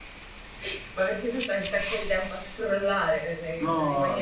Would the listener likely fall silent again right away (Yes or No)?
No